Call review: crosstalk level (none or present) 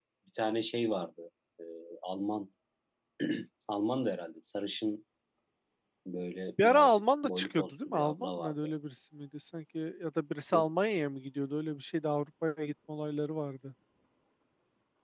present